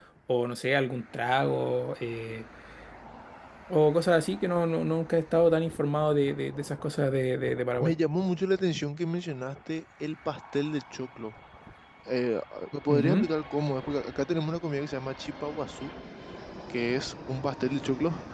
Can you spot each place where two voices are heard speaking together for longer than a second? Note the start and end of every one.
none

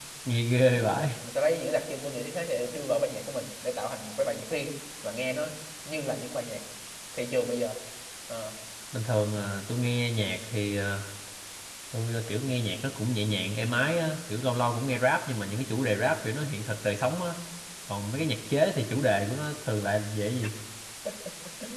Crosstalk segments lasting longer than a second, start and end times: none

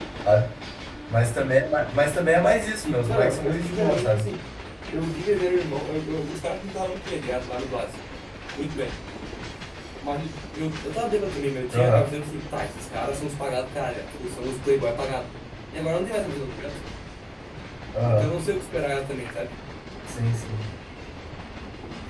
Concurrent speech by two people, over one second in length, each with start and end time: 2.8-4.2

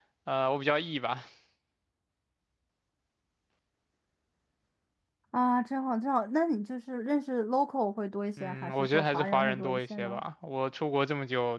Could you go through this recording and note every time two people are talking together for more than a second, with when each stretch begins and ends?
8.4-10.2

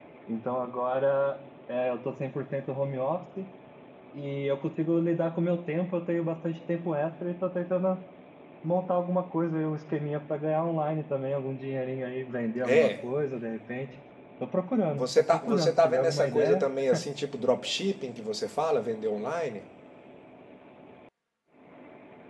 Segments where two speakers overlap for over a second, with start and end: 15.0-16.7

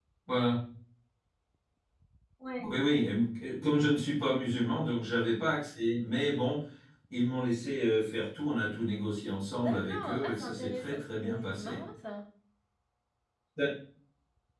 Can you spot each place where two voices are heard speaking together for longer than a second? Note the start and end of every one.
9.6-11.8

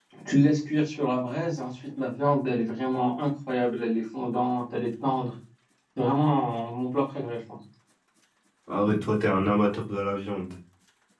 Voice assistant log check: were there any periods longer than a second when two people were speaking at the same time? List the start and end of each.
none

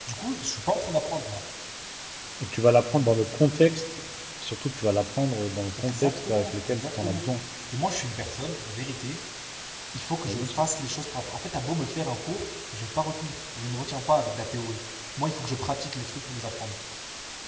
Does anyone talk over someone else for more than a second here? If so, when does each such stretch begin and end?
5.8-7.2

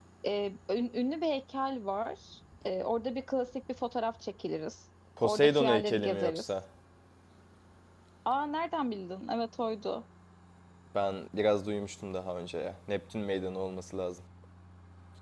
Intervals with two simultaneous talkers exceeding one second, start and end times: 5.2-6.5

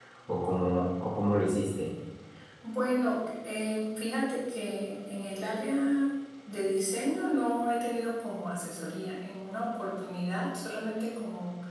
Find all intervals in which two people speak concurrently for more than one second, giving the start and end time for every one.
none

